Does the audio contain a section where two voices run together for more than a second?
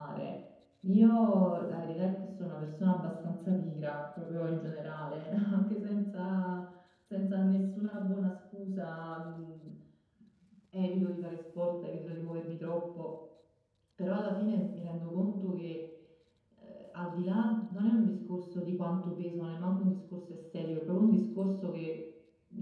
No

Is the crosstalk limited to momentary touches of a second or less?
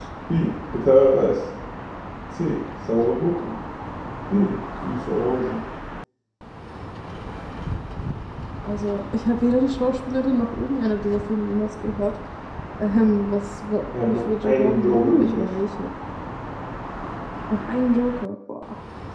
No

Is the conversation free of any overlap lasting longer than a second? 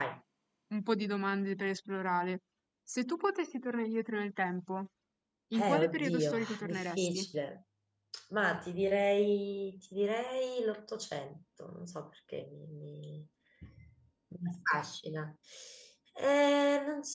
No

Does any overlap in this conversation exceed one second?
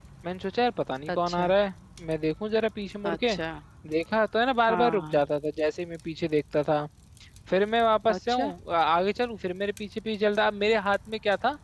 No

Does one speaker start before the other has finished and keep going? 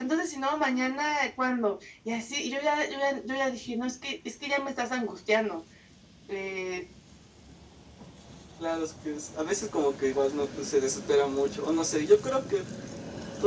No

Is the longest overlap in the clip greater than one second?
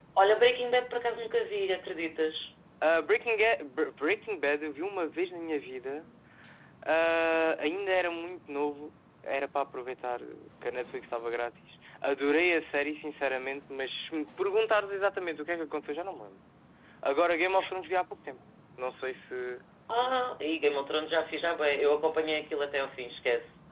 No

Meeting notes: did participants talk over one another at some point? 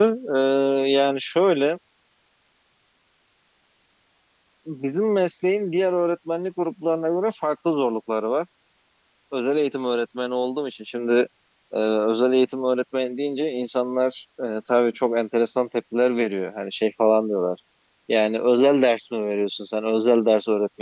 No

